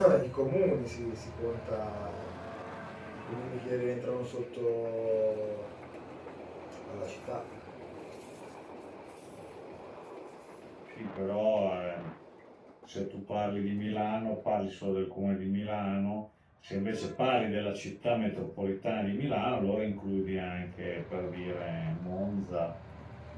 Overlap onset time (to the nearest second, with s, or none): none